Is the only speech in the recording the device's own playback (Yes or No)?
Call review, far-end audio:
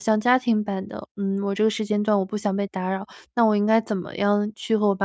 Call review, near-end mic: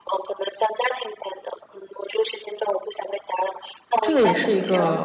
No